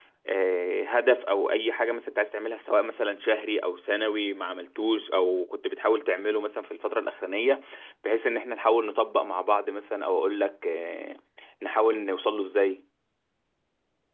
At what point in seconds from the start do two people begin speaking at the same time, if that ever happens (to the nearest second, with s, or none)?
none